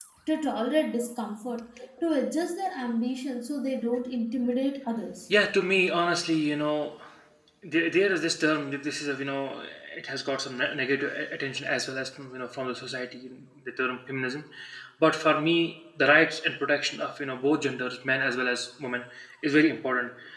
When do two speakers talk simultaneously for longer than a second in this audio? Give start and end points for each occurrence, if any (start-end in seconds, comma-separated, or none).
none